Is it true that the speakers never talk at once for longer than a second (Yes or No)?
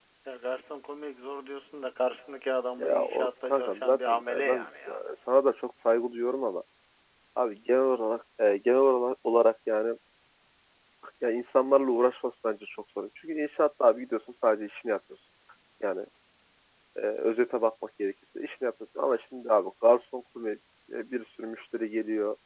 No